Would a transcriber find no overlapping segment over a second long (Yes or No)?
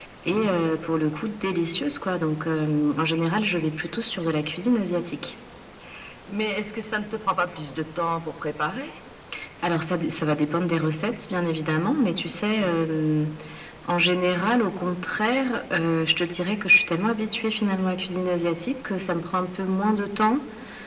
Yes